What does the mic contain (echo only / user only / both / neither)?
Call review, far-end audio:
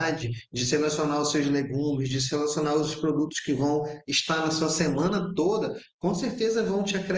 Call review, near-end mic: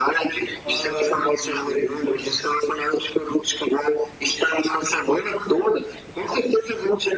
both